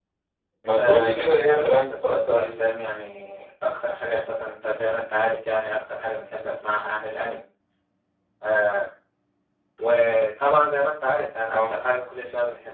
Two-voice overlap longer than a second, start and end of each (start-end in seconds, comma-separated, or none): 0.8-2.5